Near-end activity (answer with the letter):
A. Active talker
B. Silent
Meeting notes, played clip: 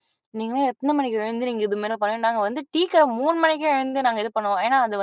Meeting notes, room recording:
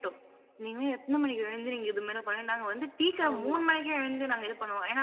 A